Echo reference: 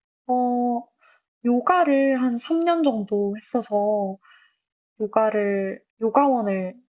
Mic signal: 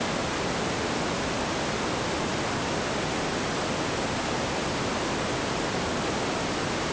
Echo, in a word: none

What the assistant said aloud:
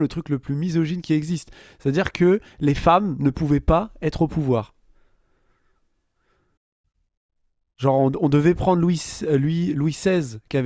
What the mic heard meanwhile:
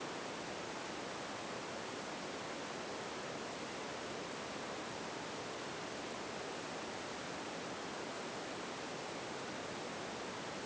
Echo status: none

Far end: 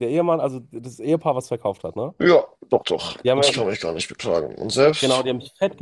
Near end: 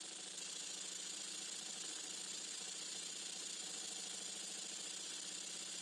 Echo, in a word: none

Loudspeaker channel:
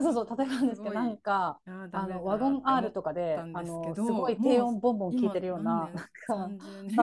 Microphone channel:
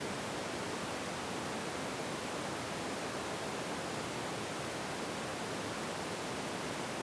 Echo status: none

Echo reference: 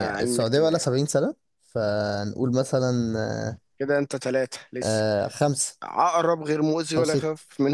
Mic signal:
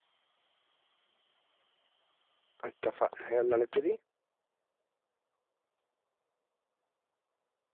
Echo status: none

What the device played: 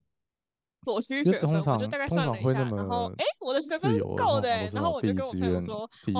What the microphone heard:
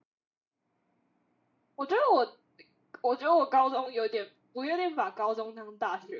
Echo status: none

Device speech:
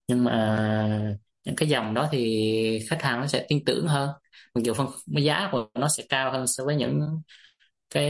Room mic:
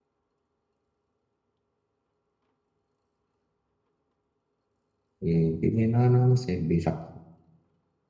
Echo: none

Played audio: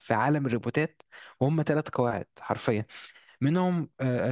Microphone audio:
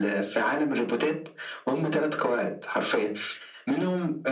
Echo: present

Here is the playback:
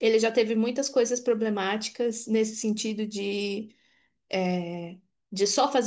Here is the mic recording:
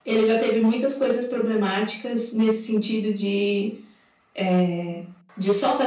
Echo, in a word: present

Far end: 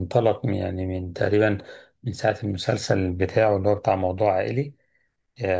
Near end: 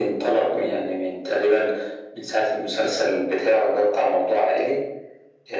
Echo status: present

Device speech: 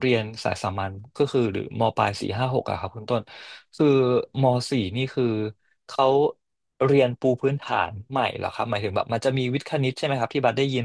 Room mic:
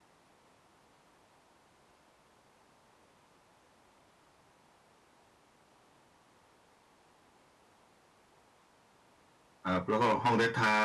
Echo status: none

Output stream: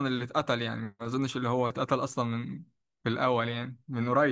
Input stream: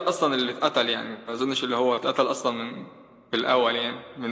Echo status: present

